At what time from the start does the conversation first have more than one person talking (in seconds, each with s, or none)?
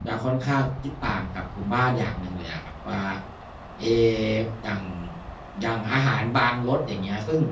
none